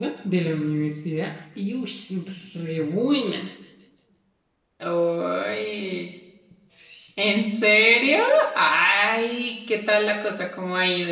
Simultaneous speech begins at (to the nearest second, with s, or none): none